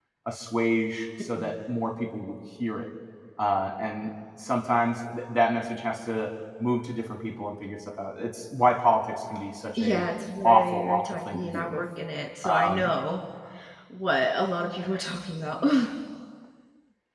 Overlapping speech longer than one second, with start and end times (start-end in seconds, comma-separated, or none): 10.4-11.8